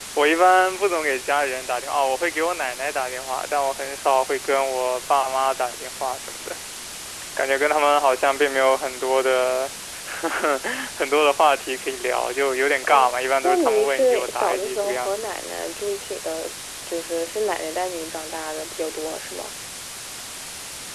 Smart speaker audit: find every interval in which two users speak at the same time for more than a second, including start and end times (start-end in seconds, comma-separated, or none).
12.8-15.1